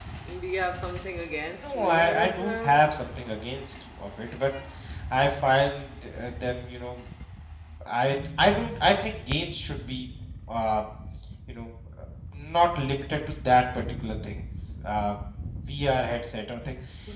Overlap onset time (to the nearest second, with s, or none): 2 s